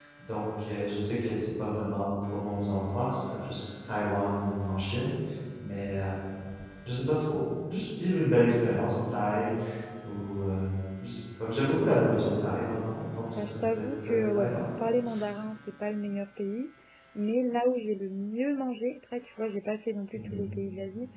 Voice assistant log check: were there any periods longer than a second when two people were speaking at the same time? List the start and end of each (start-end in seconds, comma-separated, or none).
13.3-14.7